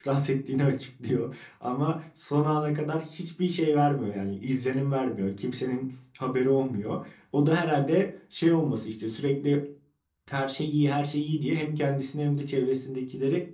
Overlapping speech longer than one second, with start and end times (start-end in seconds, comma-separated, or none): none